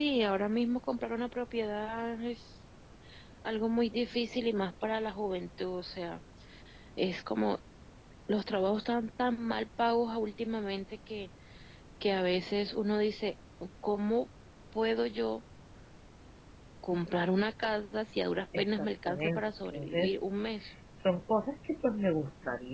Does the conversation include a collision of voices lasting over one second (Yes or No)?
Yes